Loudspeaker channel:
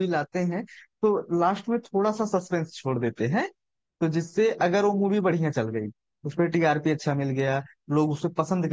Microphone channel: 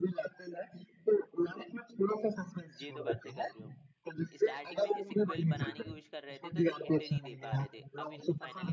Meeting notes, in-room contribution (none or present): present